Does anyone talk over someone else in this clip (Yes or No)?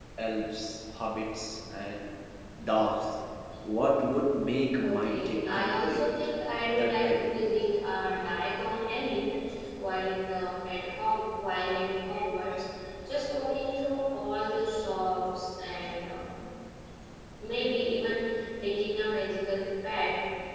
Yes